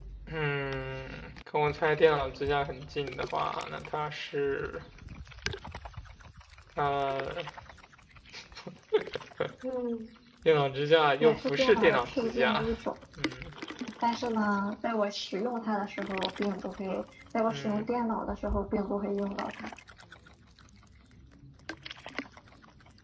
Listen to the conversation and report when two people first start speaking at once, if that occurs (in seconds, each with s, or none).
11.2 s